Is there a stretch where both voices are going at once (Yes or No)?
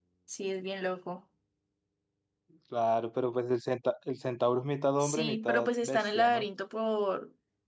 Yes